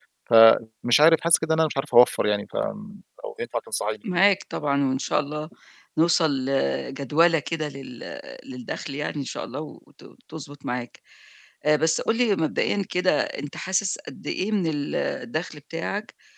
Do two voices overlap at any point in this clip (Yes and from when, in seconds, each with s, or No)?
No